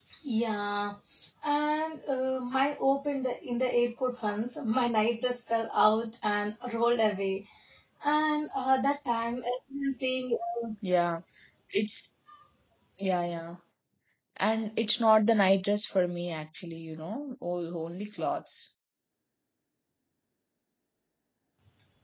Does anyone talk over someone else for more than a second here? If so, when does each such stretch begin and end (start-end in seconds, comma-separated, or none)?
none